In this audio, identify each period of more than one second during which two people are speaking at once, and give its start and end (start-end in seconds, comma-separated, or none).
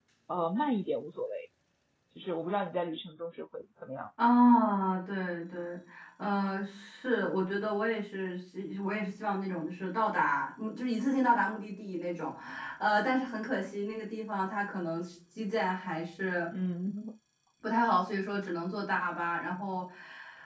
none